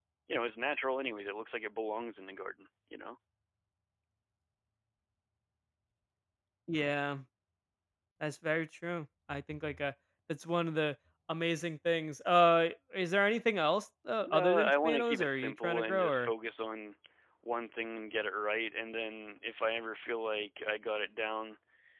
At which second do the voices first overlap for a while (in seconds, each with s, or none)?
14.2 s